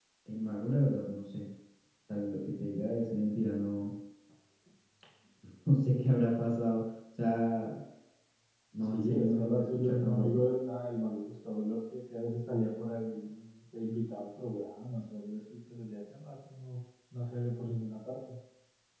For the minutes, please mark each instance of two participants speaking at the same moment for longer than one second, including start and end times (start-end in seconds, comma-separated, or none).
8.8-10.4